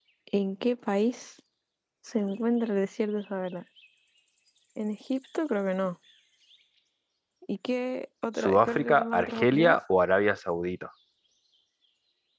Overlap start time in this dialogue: 8.4 s

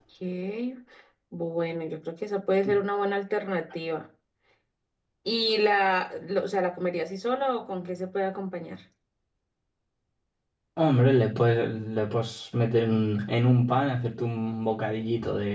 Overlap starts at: none

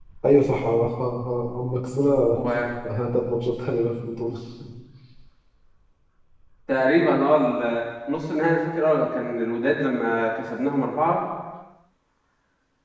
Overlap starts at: none

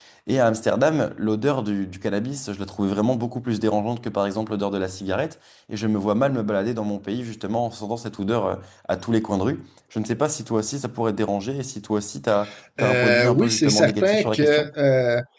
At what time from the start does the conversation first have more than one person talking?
12.8 s

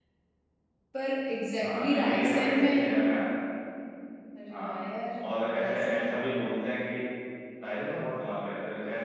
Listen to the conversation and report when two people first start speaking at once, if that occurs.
1.6 s

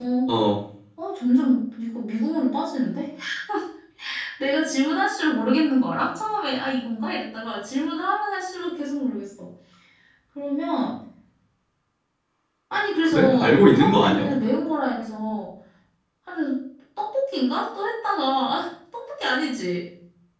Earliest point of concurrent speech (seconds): 13.0 s

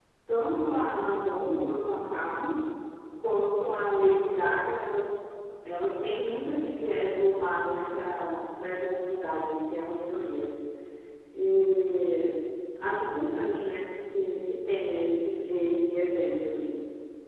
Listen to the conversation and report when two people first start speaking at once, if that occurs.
none

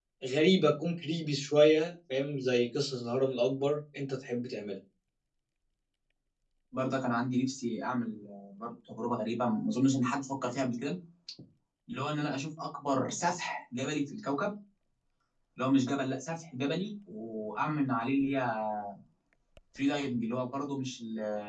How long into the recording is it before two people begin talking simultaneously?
none

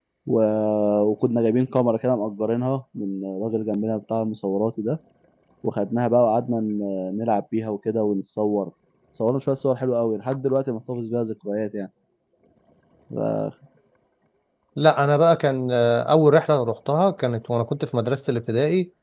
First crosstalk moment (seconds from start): none

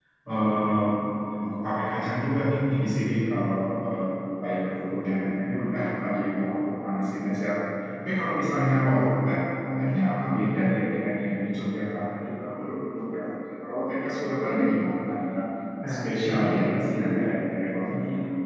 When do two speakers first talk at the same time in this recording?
15.9 s

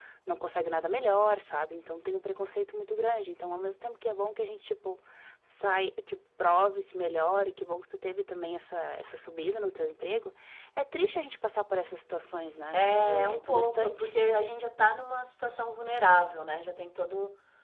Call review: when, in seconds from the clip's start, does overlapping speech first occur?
12.7 s

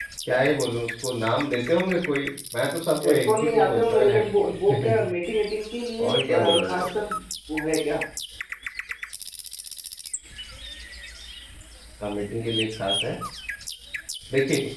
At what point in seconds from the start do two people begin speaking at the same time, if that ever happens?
3.0 s

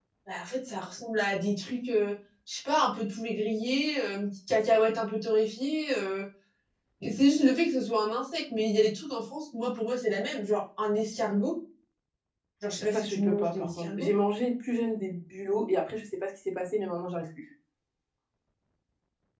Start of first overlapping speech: 12.8 s

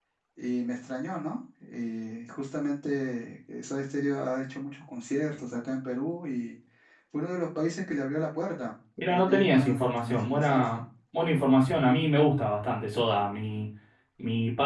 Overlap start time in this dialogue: 9.0 s

